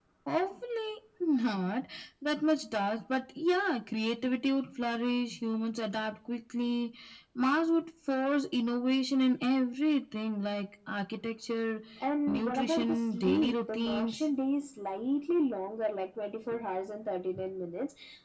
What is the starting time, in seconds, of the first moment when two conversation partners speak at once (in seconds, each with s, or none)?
12.3 s